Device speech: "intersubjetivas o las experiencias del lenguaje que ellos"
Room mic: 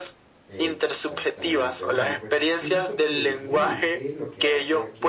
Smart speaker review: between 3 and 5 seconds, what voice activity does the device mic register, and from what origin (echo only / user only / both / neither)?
both